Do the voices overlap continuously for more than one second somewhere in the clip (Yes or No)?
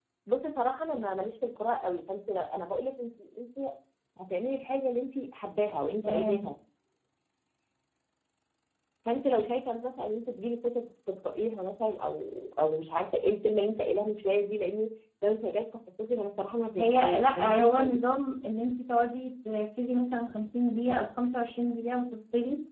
Yes